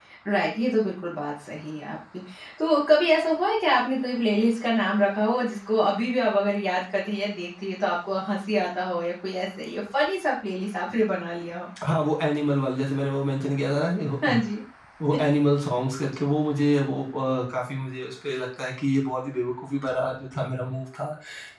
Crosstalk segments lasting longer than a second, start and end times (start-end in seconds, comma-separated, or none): none